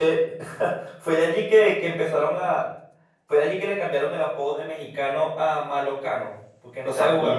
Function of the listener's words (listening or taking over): taking over